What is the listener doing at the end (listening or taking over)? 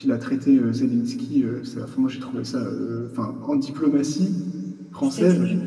listening